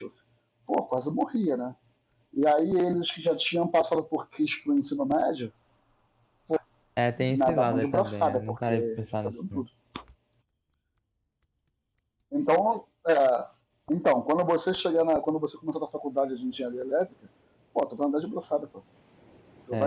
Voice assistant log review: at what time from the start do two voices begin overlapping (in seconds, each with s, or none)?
7.3 s